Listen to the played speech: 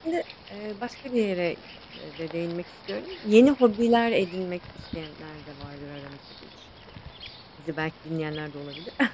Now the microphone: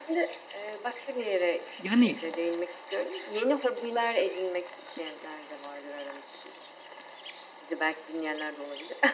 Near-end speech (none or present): present